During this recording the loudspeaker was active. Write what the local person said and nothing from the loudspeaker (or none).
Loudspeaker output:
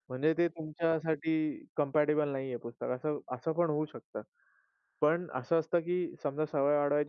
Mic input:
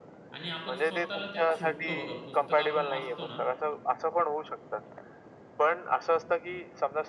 आणि आपण स्वतःला त्यात शोधतो बघा. पुस्तक आपण वाचतो ना,